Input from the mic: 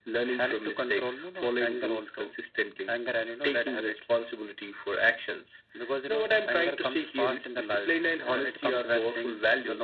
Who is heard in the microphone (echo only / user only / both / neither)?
echo only